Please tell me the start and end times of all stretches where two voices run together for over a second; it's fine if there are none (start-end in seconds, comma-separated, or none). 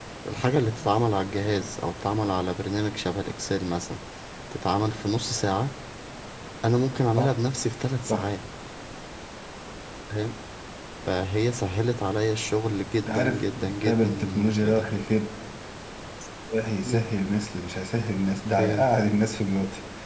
13.1-14.9